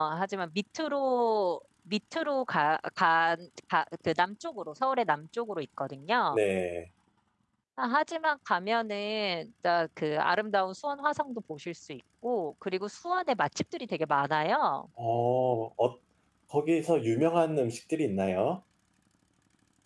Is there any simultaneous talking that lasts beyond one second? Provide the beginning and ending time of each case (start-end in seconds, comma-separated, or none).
none